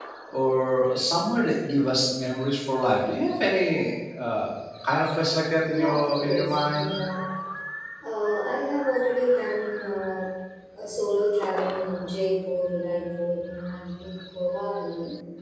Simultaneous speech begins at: 5.7 s

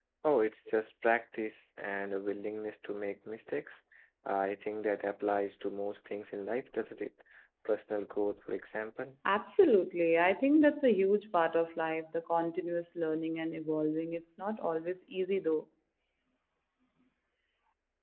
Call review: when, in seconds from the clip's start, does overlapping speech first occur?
none

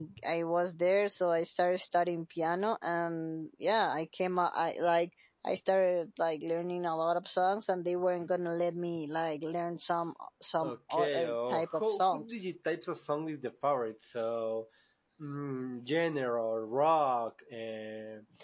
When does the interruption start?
10.6 s

